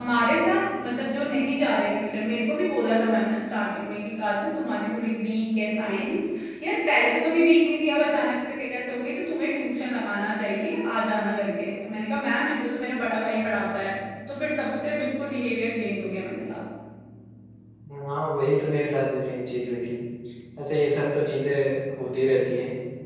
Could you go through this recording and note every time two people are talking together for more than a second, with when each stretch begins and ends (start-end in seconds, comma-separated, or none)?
none